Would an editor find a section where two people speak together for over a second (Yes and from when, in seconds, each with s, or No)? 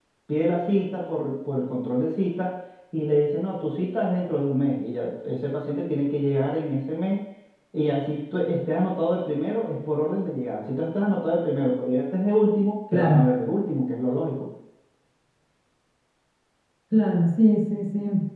No